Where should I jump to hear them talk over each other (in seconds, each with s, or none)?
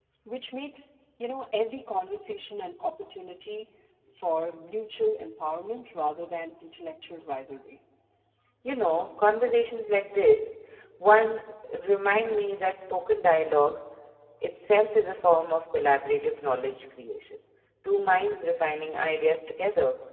none